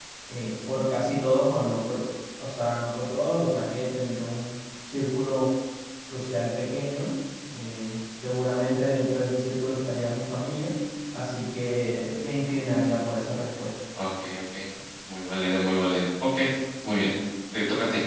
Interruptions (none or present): none